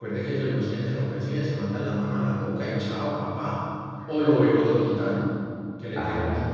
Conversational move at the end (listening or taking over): listening